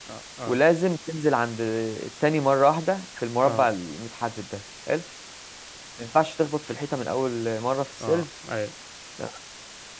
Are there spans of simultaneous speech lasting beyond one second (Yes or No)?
No